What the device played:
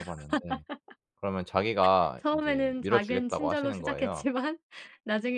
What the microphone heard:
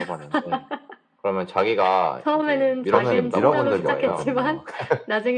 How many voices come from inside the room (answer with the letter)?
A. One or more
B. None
A